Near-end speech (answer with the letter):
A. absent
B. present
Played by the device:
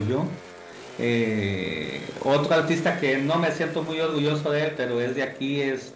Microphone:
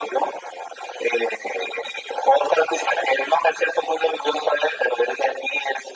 A